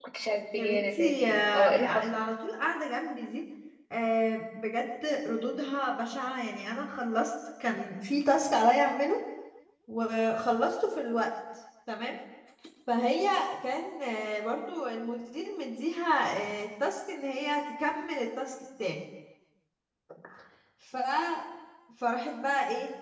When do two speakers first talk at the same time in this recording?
0.5 s

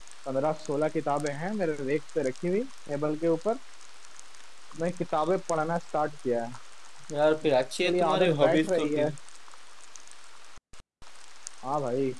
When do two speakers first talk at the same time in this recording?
7.8 s

